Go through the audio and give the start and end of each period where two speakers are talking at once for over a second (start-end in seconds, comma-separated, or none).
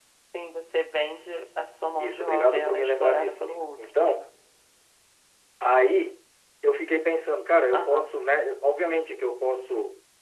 2.0-4.2